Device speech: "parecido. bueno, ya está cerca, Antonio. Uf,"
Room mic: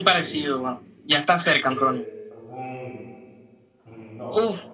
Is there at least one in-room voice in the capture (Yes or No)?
Yes